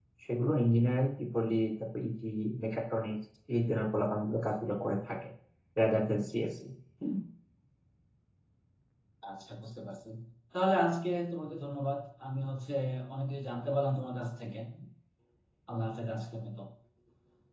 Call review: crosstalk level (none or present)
none